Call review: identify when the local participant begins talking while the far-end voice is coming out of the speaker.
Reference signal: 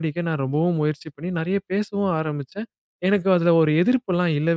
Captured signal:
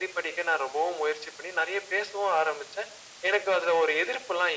none

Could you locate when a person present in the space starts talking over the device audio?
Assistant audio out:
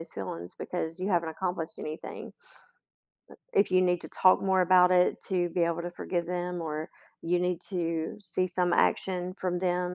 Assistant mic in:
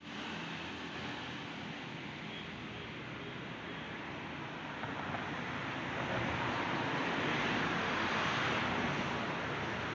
none

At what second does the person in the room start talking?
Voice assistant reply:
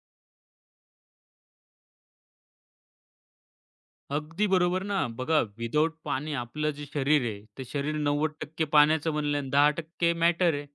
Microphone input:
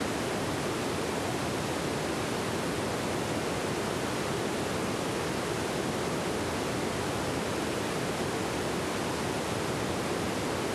none

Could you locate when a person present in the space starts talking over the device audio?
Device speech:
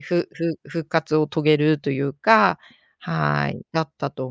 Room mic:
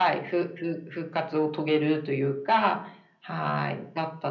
none

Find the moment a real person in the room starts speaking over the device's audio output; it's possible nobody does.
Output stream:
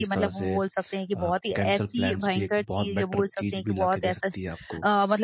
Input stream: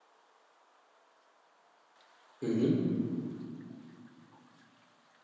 2 s

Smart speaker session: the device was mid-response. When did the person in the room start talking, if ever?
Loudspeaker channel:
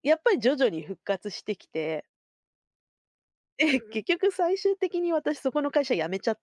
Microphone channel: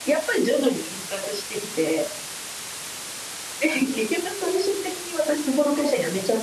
none

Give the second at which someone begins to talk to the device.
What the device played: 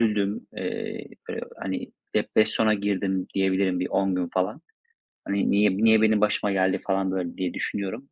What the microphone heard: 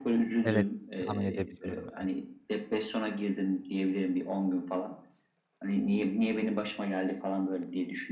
0 s

